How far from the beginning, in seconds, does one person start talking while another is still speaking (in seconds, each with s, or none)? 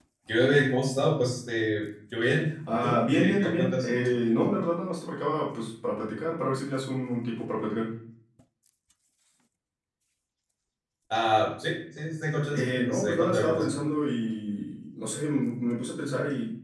2.7 s